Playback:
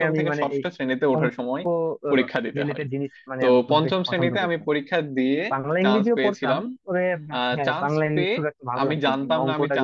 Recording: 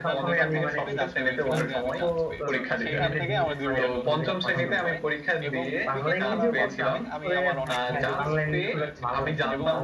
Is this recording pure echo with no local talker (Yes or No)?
No